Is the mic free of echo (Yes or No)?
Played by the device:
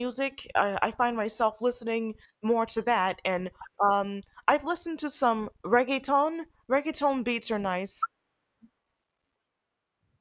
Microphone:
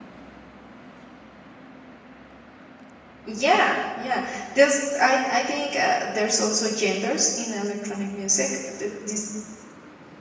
Yes